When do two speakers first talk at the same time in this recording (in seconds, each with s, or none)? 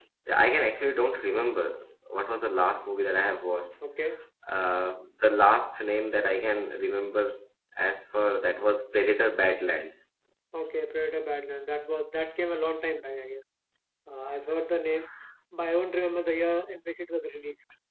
none